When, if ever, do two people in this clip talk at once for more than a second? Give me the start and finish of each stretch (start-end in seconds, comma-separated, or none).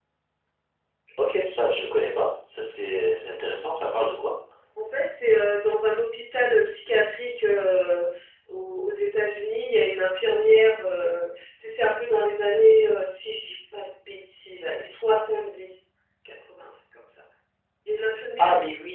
none